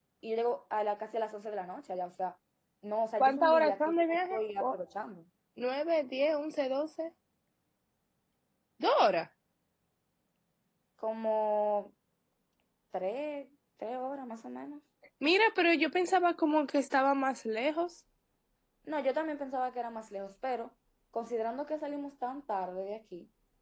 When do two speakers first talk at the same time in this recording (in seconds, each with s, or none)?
3.2 s